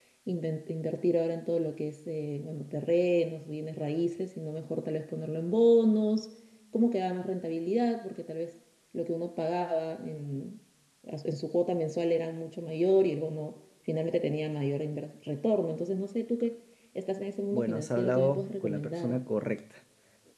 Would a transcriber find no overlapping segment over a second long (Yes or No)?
No